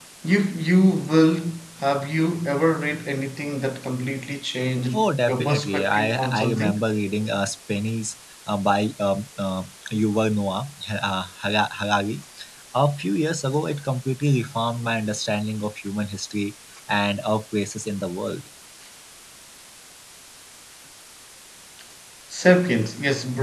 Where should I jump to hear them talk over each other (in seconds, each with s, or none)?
4.9 s